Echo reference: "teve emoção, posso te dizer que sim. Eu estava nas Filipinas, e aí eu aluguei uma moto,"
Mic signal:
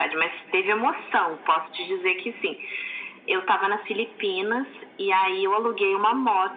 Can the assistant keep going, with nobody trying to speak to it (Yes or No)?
Yes